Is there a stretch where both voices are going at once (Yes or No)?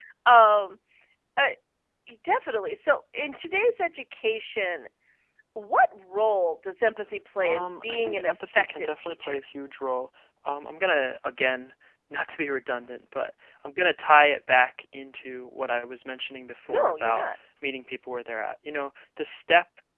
Yes